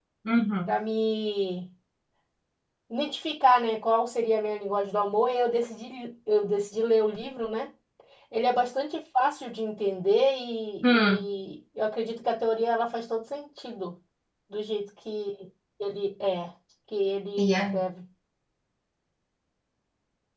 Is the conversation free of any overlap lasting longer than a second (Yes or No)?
Yes